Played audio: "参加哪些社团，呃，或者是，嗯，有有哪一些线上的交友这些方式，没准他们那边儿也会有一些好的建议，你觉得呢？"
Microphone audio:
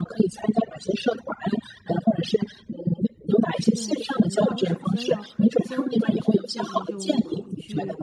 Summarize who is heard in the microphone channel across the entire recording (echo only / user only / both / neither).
both